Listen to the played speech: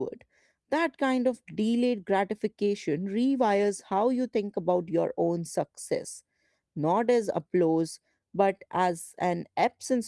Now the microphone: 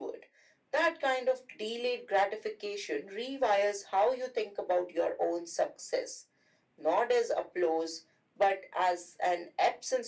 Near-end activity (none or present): none